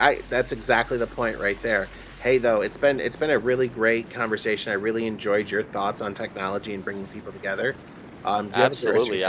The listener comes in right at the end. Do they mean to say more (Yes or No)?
Yes